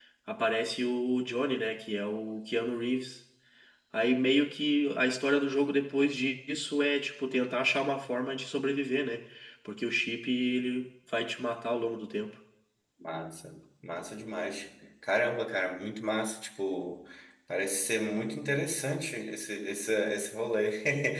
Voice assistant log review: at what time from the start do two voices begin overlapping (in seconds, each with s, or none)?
none